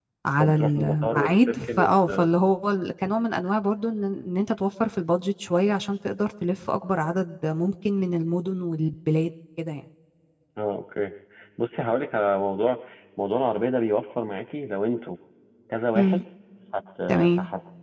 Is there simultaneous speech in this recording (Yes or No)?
Yes